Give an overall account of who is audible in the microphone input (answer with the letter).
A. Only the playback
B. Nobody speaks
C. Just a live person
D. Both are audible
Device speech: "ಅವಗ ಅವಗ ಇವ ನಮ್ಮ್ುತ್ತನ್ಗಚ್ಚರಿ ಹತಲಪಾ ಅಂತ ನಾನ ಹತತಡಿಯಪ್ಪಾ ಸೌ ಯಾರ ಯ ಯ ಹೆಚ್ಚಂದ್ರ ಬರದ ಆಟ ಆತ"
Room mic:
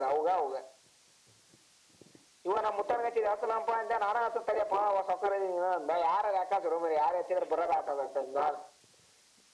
A